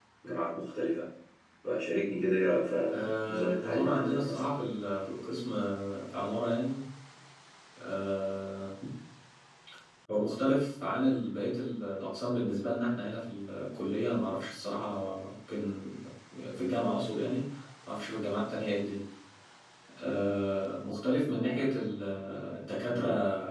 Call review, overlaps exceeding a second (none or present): present